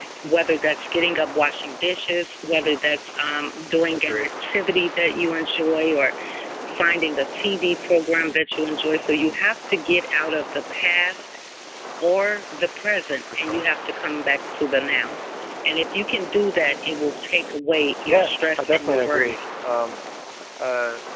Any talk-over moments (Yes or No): Yes